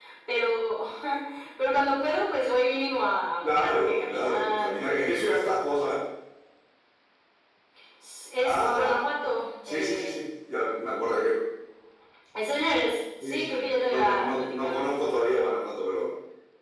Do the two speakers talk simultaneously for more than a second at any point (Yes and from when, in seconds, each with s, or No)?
Yes, from 3.4 s